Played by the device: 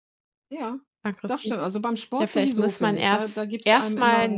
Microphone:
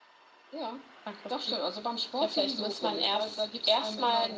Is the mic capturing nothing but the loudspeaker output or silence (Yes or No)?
Yes